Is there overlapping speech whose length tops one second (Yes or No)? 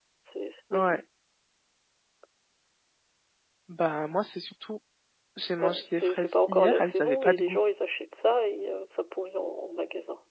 Yes